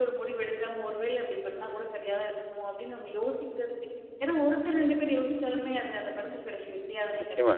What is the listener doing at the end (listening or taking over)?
taking over